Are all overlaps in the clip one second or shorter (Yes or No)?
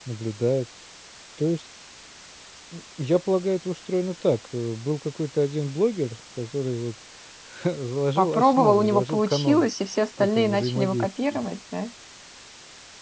No